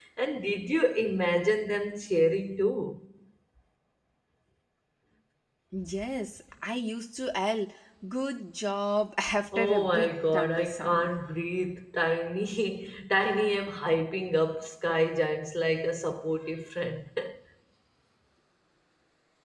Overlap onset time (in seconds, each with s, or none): 9.5 s